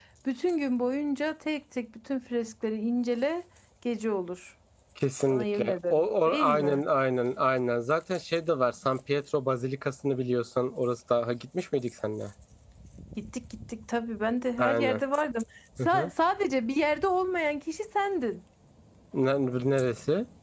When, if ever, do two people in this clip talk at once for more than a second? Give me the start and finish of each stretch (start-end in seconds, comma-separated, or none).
5.3-6.8